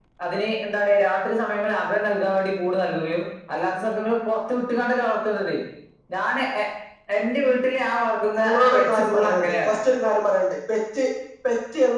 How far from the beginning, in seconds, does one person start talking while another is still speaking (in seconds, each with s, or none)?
8.4 s